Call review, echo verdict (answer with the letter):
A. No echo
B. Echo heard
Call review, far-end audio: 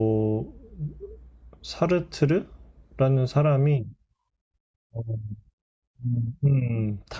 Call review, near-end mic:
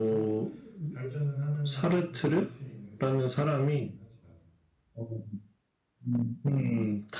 B